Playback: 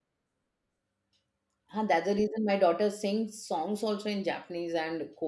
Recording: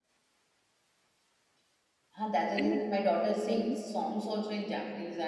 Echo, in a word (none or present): present